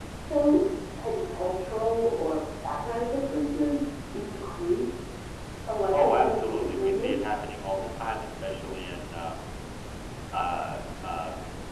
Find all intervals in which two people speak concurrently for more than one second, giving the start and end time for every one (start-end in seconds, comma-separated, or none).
5.9-7.4